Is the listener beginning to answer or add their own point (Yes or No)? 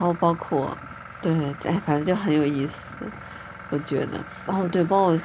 No